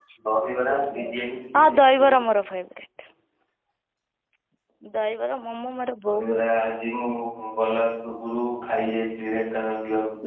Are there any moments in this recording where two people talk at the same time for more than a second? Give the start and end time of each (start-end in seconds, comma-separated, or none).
none